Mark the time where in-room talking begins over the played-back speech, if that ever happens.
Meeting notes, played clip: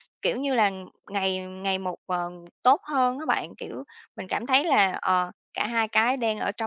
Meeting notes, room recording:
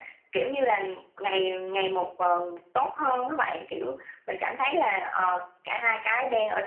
none

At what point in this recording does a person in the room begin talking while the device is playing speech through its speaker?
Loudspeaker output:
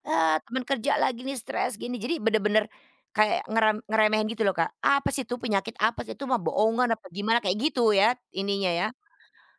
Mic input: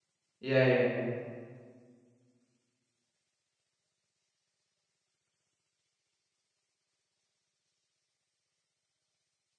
0.4 s

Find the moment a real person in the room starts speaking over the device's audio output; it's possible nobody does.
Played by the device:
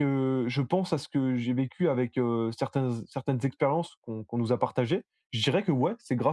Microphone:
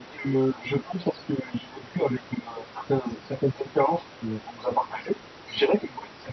none

